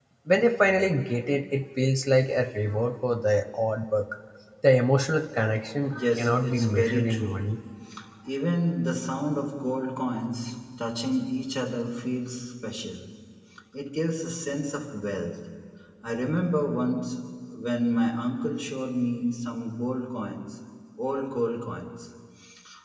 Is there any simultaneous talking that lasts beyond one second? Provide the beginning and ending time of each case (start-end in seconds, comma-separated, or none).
5.9-7.3